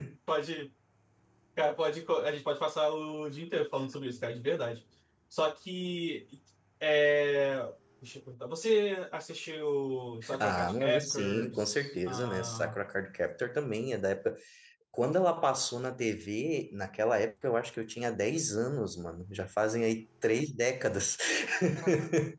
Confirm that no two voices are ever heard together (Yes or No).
No